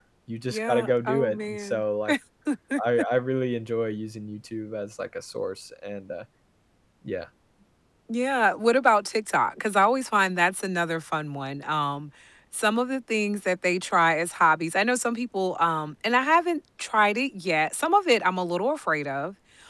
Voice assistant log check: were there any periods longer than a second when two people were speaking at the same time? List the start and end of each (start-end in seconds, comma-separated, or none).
0.5-1.8